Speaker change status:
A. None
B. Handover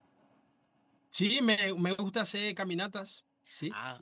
B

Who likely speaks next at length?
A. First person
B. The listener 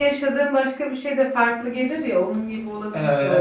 B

